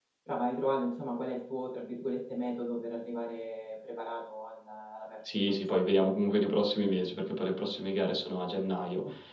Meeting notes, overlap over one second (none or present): none